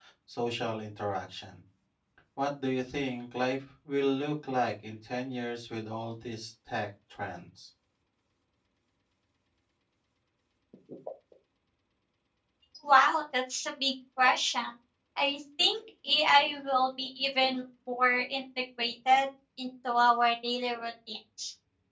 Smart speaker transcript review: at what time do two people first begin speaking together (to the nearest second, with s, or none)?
none